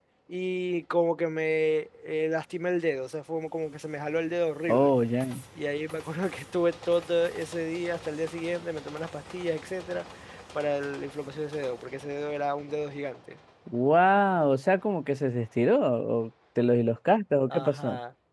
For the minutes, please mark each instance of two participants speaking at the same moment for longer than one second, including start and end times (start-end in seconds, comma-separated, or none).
none